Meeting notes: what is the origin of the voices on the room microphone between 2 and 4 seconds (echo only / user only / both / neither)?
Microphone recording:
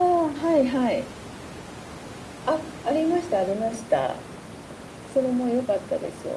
echo only